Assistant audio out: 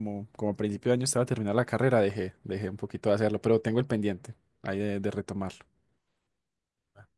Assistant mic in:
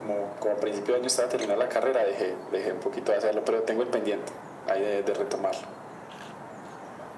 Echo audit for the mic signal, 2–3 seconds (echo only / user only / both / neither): echo only